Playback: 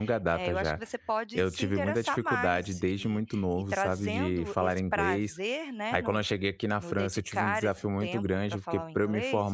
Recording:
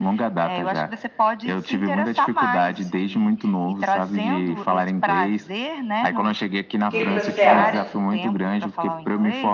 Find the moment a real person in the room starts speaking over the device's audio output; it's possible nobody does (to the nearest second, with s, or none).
7 s